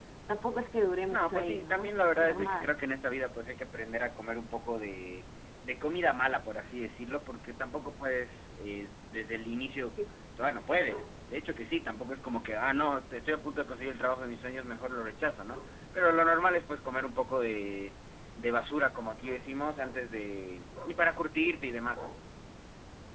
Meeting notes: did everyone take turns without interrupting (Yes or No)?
No